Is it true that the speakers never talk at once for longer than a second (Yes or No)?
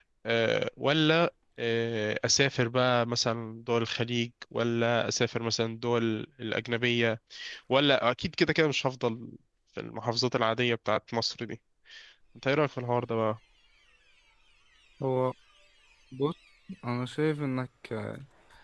Yes